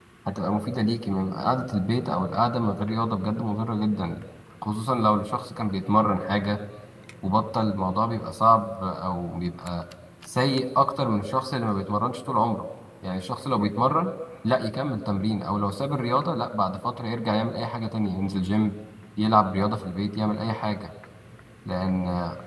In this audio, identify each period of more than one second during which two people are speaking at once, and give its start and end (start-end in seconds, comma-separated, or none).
none